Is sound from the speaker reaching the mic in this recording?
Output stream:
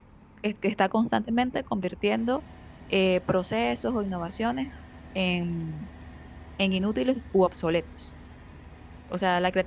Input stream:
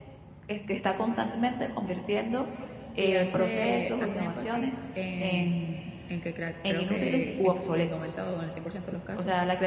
Yes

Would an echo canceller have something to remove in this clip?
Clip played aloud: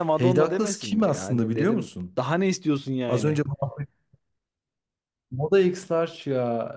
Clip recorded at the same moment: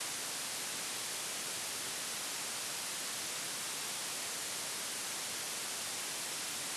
No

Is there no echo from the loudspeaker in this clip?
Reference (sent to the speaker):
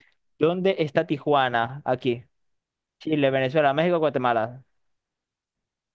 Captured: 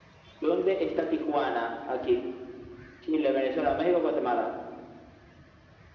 No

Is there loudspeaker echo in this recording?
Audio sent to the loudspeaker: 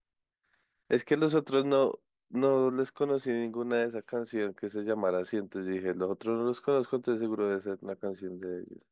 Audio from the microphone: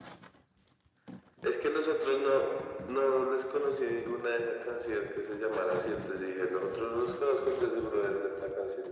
Yes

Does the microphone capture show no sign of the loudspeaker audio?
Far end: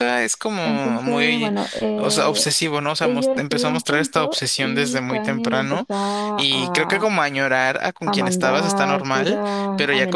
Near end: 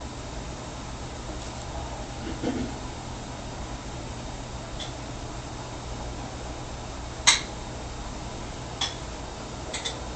Yes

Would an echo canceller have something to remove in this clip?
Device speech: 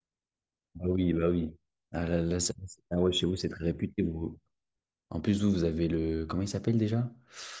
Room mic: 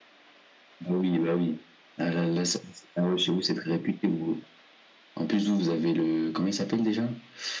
Yes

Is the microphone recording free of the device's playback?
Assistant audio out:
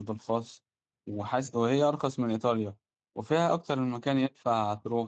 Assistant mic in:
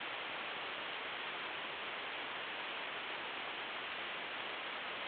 Yes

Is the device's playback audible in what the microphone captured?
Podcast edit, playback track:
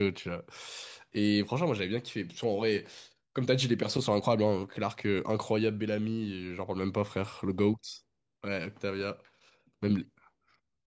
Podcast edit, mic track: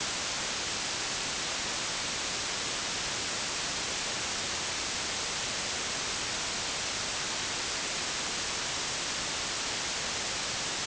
No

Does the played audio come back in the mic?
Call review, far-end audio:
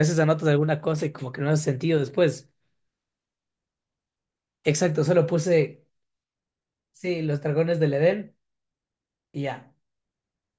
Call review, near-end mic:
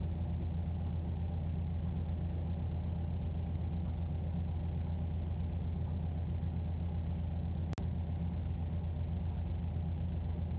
No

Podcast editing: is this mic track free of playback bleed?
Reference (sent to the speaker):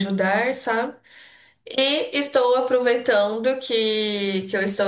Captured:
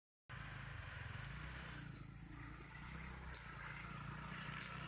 Yes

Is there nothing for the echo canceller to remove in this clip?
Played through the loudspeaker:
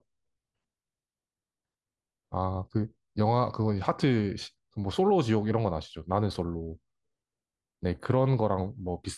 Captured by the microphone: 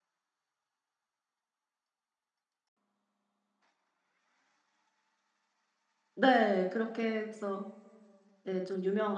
Yes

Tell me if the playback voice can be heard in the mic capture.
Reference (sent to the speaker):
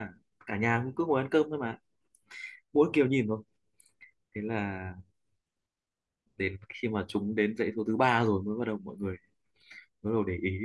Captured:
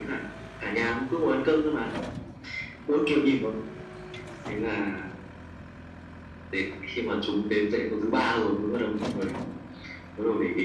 Yes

